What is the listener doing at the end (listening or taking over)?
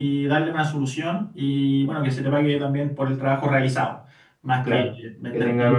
taking over